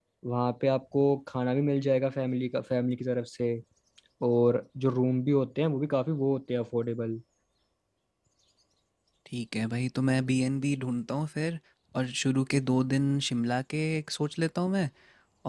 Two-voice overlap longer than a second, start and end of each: none

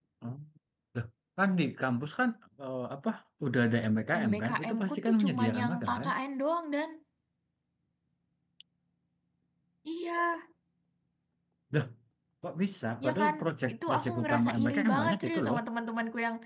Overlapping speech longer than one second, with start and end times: 4.1-6.1, 13.7-15.6

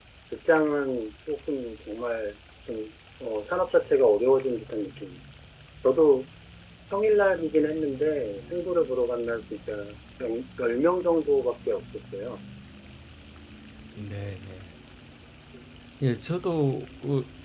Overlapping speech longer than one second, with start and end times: none

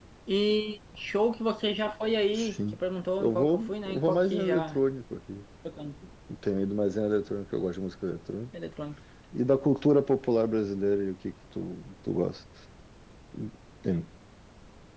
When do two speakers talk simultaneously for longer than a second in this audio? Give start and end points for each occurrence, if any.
3.2-4.8

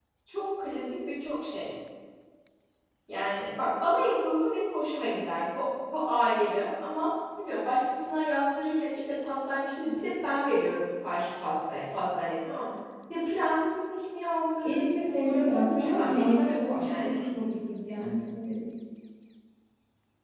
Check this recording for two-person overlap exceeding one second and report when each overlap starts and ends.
14.6-17.2

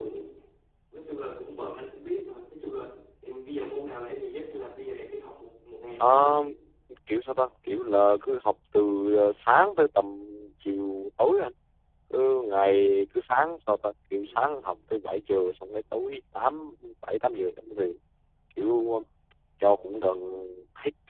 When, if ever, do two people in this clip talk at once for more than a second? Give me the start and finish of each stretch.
none

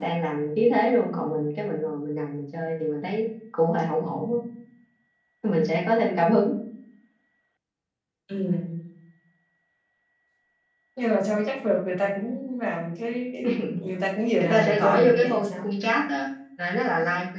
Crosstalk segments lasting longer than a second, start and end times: 14.4-15.6

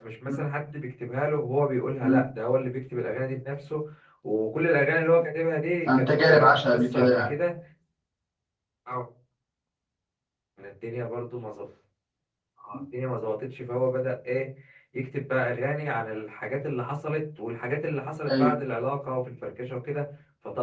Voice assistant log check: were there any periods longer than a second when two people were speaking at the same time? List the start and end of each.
6.0-7.3

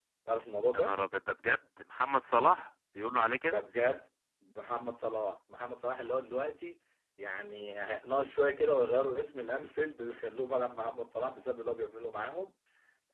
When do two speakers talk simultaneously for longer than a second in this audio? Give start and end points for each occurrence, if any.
none

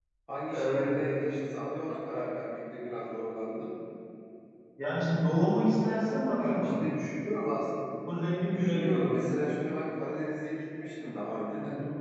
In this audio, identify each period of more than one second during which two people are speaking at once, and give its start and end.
none

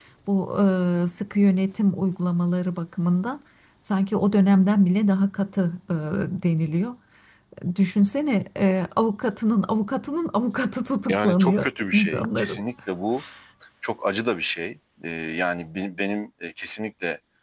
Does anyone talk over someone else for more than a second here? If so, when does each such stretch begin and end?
11.1-12.6

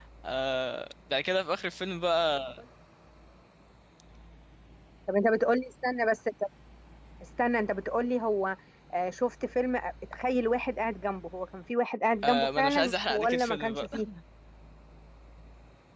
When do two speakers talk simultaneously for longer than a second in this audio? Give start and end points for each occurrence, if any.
12.2-13.9

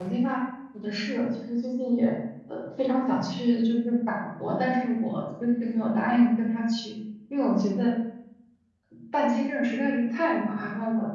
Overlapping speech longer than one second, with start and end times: none

